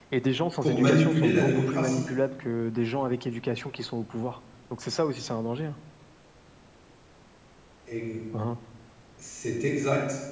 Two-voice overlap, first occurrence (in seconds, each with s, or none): 0.6 s